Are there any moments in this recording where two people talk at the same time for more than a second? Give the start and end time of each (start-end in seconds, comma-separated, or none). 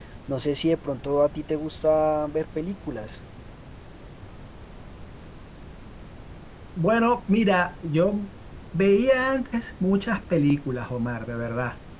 none